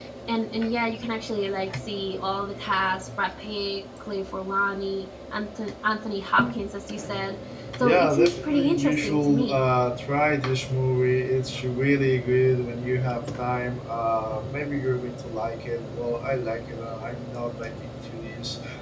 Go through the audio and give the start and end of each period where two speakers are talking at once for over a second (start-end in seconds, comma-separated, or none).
7.8-9.6